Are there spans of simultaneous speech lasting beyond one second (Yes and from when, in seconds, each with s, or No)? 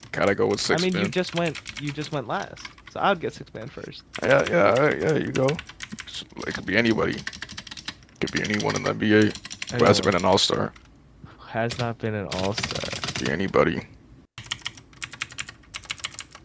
No